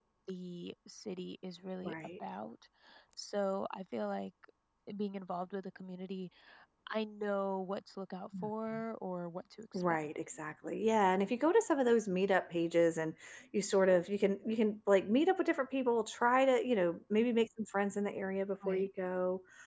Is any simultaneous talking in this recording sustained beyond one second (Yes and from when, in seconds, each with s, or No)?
No